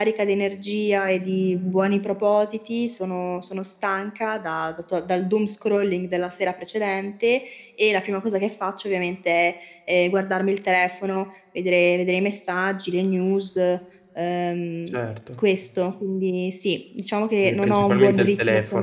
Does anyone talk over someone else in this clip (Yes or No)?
Yes